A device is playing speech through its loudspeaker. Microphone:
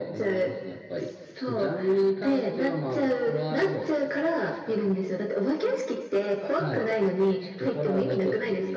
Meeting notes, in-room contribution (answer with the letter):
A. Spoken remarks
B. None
B